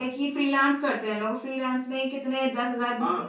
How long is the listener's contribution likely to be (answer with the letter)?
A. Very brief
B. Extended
A